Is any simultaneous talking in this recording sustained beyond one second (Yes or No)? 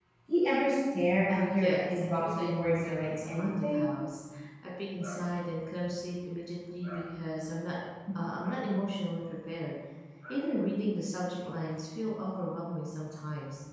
Yes